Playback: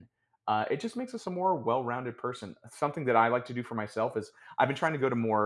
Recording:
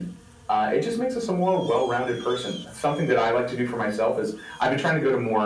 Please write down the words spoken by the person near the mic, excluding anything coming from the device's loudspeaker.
none

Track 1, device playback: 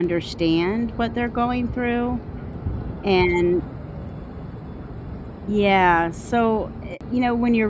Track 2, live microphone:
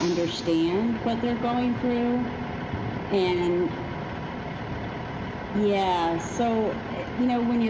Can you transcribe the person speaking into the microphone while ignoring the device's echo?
none

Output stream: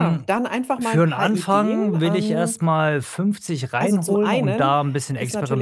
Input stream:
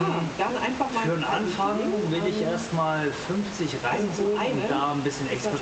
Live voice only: none

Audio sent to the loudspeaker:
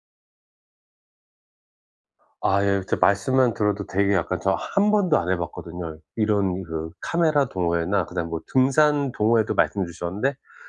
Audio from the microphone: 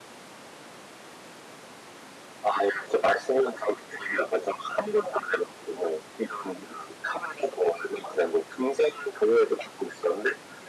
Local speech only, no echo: none

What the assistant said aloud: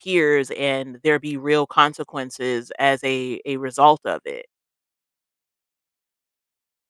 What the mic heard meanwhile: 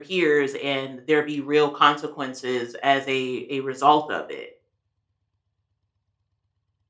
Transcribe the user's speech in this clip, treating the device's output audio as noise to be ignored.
none

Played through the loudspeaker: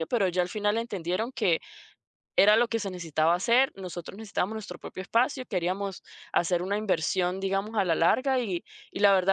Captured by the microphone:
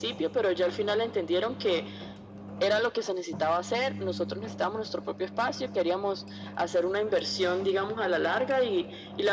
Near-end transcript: none

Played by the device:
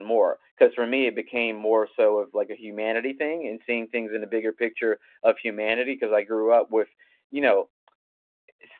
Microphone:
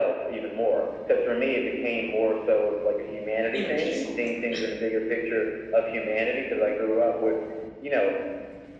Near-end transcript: in a peaceful manner.

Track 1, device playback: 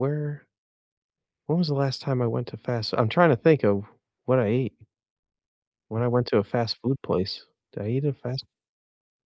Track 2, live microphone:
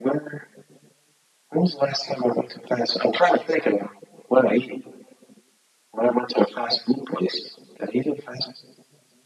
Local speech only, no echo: none

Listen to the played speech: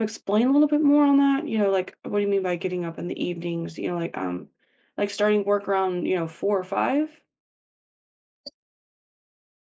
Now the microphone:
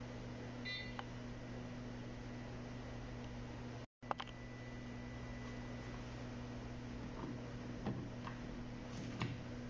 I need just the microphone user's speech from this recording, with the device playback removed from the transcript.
none

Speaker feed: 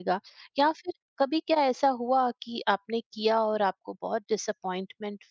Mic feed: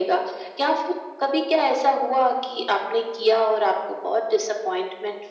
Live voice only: none

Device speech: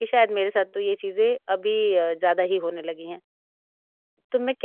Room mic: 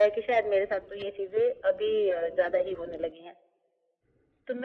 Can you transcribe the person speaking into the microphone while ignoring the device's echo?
none

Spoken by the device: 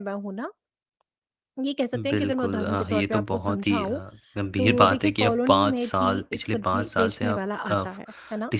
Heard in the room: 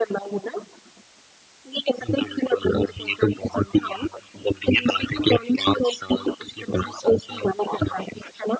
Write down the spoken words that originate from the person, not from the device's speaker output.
none

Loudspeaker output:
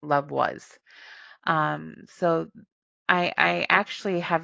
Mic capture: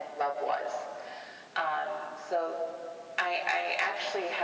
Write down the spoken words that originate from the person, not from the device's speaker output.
none

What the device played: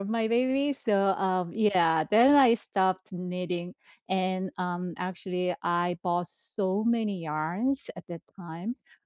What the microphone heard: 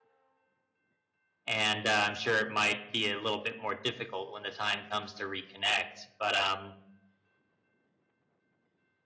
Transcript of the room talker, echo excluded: and, uh, I'm sure it might be a little bit more difficult when the time comes to reconnect, but, um,

